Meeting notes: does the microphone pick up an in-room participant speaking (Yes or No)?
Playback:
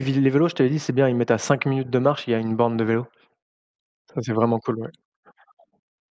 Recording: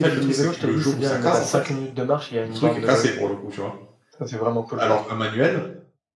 Yes